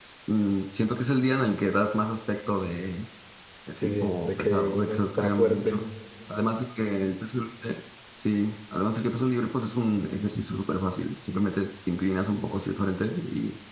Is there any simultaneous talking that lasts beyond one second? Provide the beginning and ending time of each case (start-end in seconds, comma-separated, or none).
3.8-5.7